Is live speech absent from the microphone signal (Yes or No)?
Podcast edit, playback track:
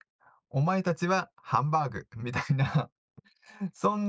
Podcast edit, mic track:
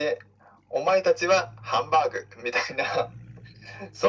Yes